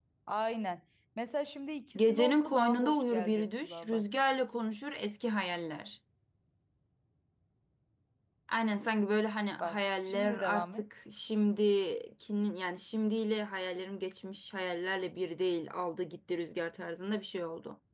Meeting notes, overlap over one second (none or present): present